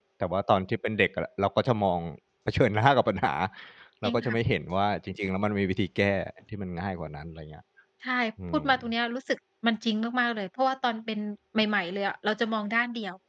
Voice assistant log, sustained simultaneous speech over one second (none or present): none